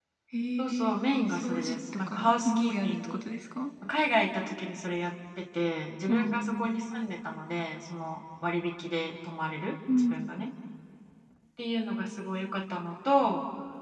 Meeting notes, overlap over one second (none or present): present